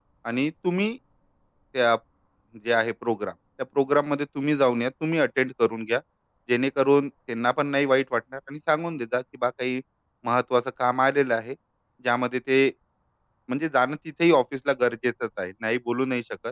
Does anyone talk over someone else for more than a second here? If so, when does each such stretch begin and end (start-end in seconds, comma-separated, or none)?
none